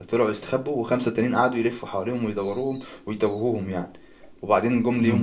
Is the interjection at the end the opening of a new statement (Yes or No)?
Yes